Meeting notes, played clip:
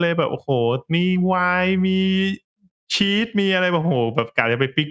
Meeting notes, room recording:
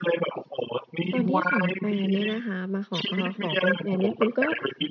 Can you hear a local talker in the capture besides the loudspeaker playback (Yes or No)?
Yes